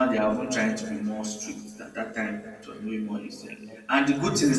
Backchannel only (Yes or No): Yes